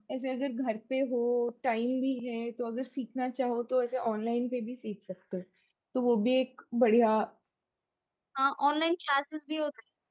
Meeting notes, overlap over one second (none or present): none